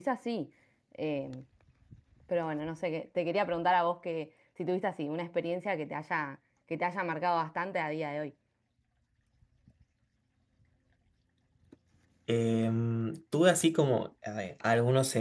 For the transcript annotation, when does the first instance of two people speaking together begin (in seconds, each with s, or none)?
none